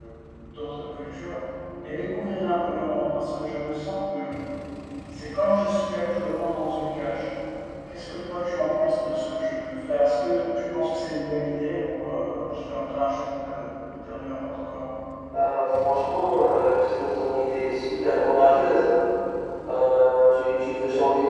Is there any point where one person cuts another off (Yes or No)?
No